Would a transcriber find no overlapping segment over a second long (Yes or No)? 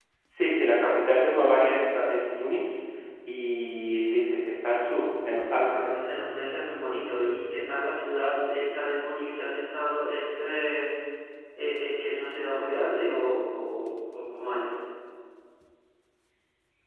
Yes